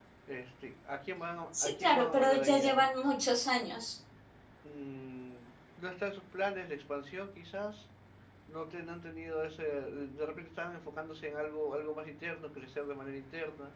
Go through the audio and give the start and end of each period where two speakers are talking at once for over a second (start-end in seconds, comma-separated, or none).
1.6-2.9